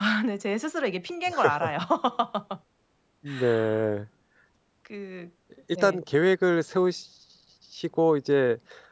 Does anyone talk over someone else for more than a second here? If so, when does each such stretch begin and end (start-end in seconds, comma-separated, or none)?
none